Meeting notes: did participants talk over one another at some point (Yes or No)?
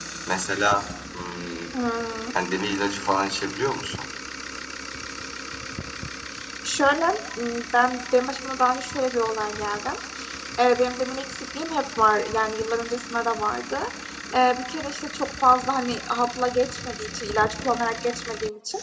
No